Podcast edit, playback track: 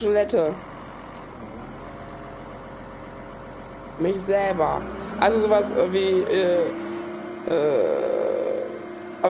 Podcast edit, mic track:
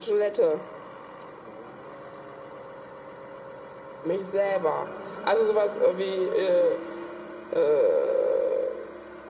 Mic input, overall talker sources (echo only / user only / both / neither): echo only